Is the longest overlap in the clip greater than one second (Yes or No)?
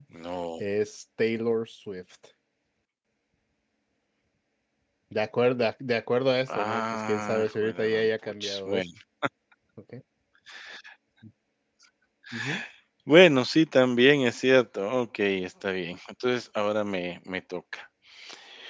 Yes